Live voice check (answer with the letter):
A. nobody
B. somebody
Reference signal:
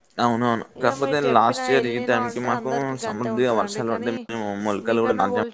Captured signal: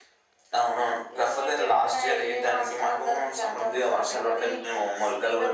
A